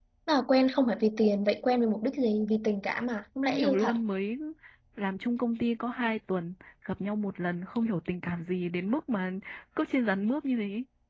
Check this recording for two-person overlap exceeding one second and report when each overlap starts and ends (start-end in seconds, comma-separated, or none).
none